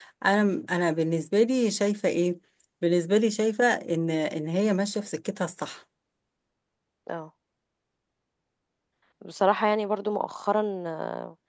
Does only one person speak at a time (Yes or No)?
Yes